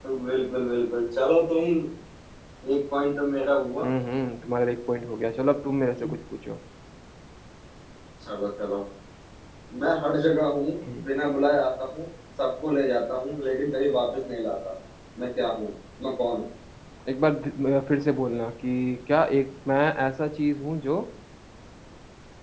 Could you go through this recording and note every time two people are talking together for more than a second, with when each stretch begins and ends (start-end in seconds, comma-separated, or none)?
none